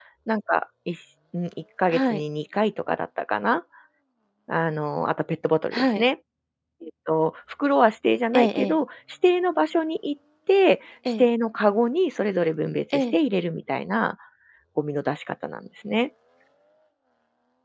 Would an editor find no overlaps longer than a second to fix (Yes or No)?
Yes